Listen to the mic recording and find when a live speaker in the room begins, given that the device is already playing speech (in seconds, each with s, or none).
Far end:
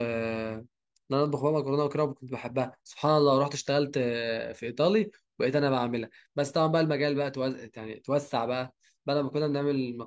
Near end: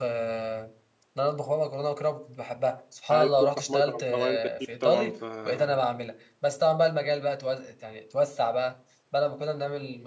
3.1 s